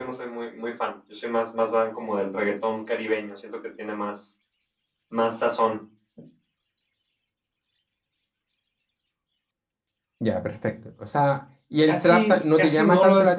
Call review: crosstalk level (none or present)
present